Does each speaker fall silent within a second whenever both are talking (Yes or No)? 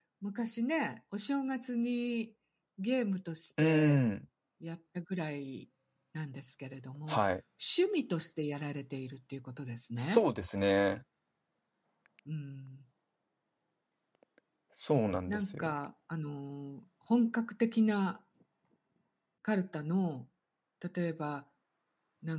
Yes